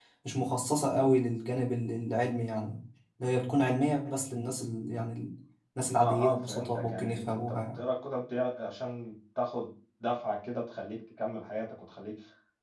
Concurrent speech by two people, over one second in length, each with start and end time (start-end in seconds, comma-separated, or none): 6.0-7.8